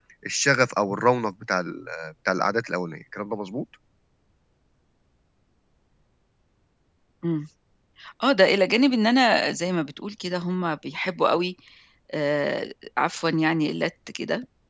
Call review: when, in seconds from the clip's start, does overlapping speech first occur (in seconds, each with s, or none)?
none